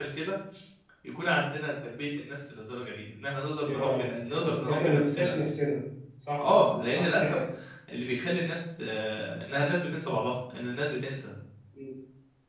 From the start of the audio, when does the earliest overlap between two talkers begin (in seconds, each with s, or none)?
3.7 s